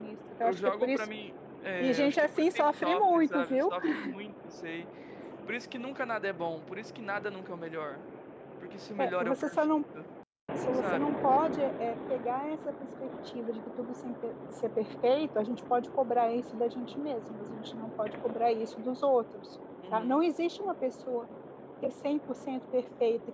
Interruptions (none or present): present